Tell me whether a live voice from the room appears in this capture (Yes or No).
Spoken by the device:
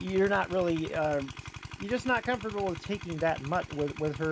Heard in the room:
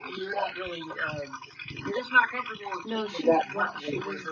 Yes